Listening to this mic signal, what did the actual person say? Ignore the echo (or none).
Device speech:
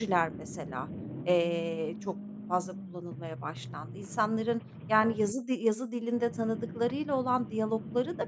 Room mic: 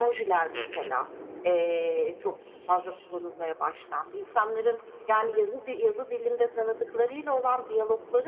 Hı hı.